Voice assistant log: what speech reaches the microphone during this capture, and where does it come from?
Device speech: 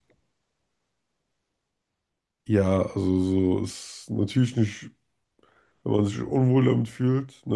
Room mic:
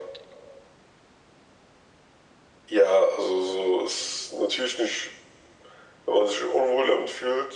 echo only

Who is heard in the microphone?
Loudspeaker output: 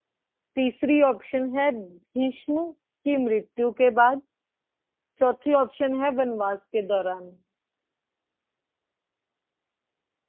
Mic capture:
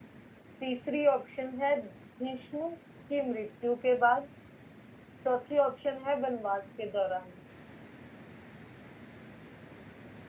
echo only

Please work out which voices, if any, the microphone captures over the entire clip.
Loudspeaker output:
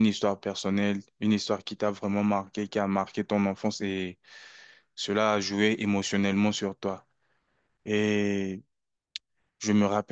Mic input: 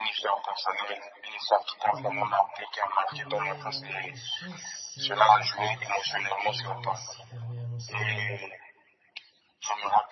both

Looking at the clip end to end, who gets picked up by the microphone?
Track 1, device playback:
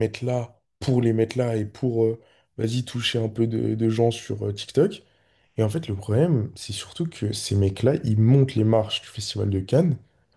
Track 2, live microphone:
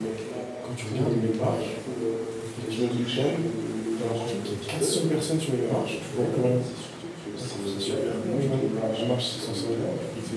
both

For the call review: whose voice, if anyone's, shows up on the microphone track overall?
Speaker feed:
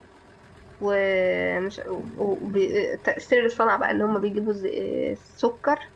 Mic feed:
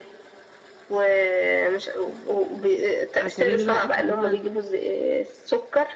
both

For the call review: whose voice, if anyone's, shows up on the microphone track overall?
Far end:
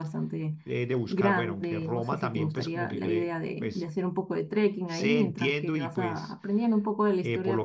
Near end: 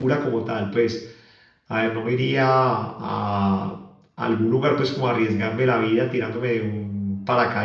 user only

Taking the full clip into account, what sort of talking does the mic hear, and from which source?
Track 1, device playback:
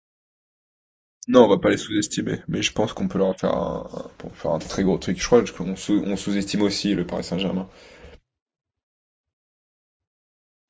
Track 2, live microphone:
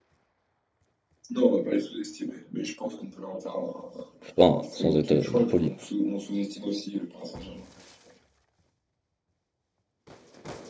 both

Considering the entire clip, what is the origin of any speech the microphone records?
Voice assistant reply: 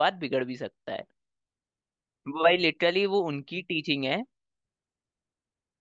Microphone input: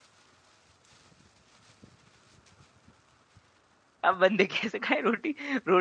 user only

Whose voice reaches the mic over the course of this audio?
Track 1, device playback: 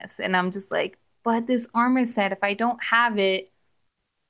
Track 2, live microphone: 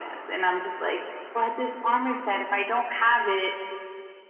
echo only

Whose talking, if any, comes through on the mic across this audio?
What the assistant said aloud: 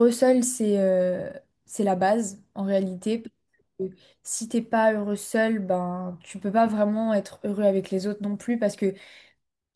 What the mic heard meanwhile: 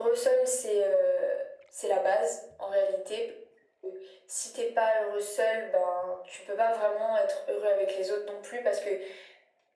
echo only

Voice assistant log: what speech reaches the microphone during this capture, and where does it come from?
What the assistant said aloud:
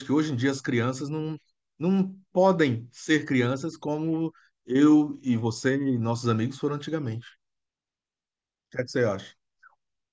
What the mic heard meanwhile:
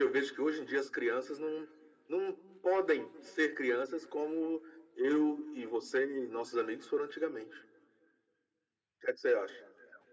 echo only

